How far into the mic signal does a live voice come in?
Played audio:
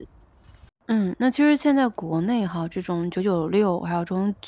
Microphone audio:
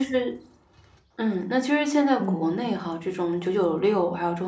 2.2 s

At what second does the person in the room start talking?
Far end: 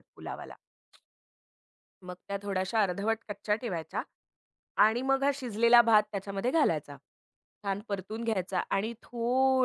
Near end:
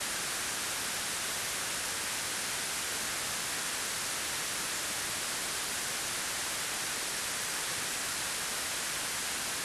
none

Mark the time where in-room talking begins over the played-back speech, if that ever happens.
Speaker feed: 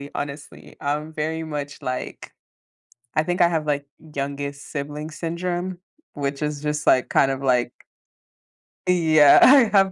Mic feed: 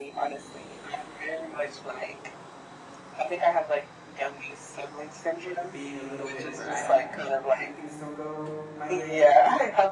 5.7 s

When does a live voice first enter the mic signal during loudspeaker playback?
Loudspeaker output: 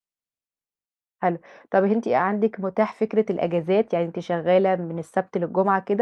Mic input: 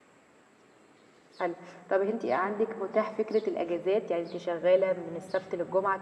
none

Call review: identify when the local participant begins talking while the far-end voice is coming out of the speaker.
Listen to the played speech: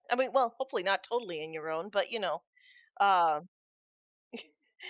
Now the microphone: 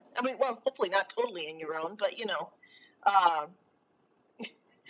none

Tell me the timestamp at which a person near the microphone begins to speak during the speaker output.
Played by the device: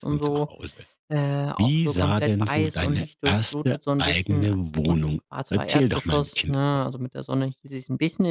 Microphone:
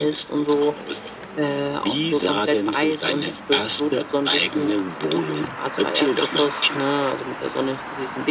none

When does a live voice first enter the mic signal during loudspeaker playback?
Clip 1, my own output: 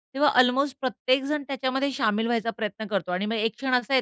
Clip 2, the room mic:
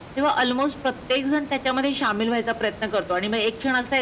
none

